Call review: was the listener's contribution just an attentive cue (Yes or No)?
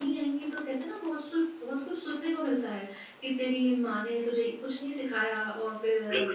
No